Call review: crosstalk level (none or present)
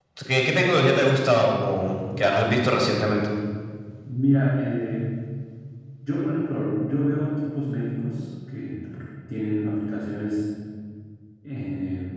none